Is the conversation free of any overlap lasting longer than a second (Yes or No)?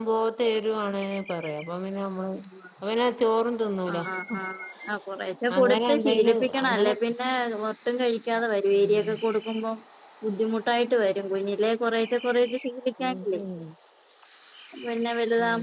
No